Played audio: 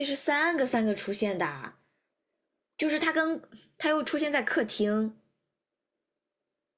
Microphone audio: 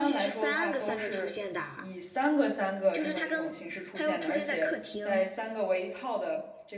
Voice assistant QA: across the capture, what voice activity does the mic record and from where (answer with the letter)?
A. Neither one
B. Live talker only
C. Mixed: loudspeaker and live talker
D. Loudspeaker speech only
C